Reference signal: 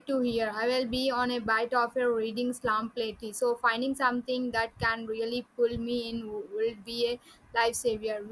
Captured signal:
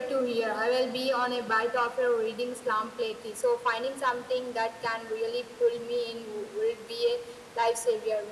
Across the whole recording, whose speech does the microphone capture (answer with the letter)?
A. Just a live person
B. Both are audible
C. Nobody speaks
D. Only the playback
D